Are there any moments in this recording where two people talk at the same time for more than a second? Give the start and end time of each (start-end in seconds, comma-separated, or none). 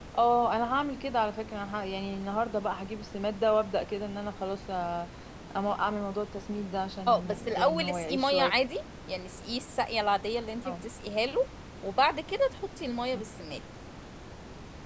7.1-8.5